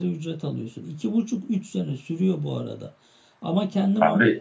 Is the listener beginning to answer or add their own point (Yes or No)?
No